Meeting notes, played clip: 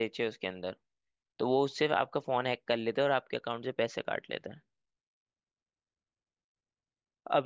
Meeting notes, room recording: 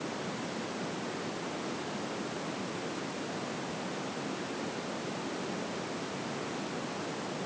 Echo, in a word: none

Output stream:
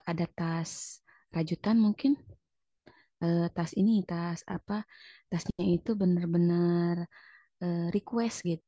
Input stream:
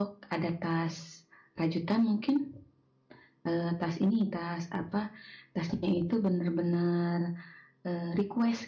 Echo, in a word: present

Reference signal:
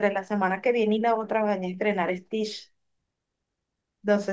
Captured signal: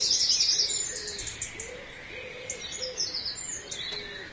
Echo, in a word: none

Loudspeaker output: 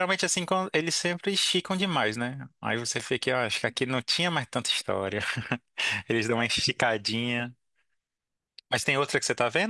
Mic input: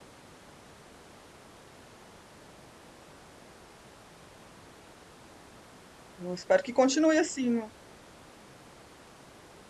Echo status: none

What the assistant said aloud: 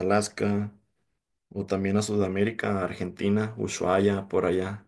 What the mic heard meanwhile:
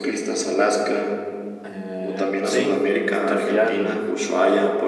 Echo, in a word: present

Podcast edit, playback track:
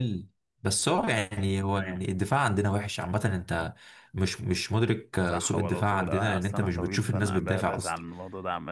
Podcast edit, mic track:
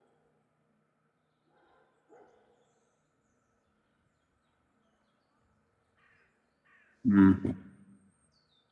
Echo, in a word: none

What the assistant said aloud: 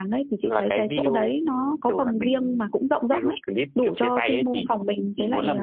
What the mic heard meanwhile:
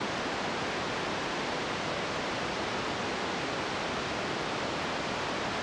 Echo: none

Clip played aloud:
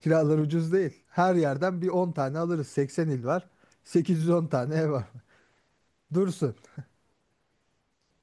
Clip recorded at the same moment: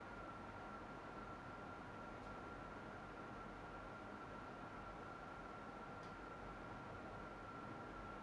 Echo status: none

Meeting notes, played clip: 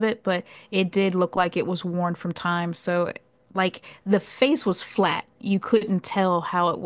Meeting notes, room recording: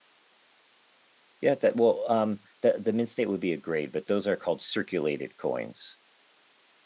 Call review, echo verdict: none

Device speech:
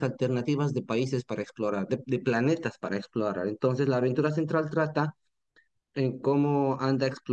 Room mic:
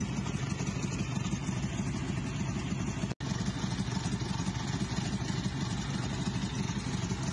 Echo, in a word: none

